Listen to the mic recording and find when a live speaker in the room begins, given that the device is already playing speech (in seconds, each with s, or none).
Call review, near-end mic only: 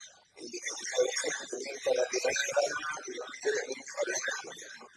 none